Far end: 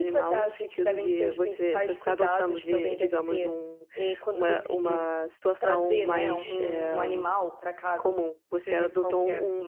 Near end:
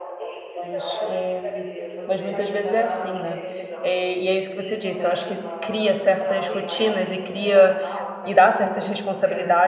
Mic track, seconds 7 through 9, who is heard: both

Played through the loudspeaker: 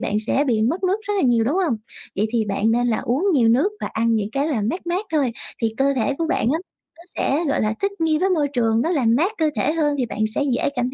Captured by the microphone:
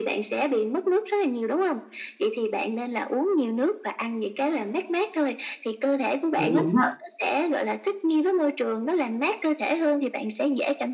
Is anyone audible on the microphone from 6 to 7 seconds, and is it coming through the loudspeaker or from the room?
both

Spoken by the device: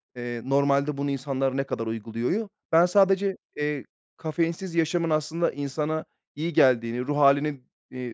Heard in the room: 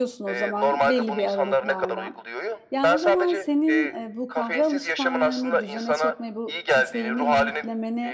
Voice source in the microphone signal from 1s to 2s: both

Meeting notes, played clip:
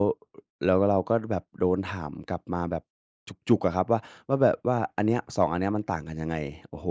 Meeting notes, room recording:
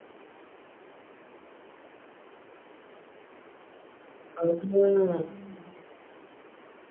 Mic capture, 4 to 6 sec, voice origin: user only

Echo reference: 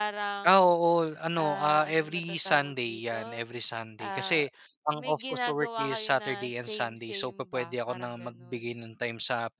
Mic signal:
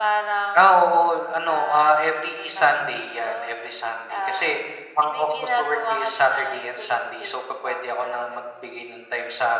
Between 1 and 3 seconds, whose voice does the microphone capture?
echo only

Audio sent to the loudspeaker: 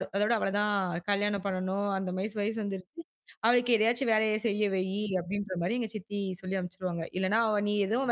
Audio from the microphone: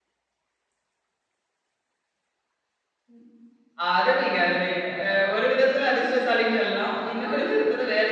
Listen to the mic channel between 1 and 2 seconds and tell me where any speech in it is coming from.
neither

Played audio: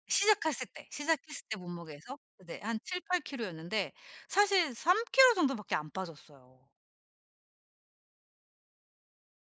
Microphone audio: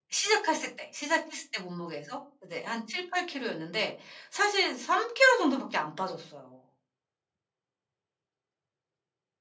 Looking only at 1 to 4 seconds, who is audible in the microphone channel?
echo only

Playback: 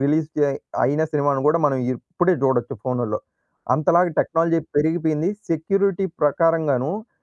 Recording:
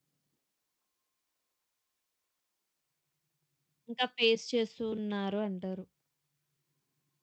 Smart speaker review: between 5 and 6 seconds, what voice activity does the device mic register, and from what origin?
user only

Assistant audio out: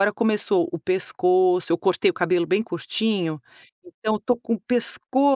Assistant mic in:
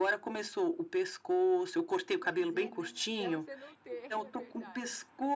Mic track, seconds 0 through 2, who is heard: echo only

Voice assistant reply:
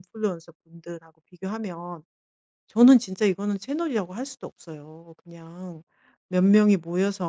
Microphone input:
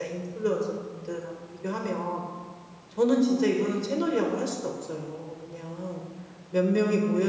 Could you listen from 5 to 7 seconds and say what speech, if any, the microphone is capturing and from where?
echo only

